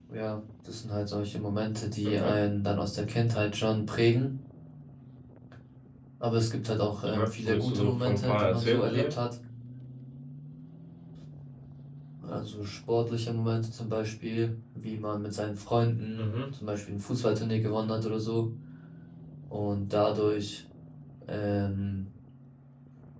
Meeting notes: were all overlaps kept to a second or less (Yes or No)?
No